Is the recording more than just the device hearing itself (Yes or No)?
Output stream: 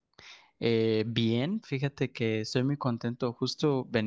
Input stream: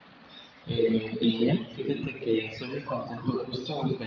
No